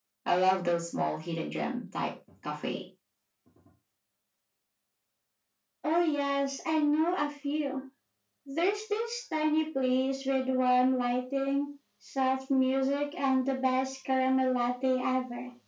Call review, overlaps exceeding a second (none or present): none